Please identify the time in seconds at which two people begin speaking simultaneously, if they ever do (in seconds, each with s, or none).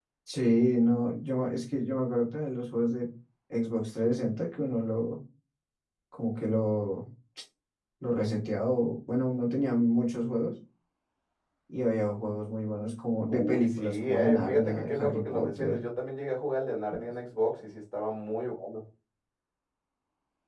13.3 s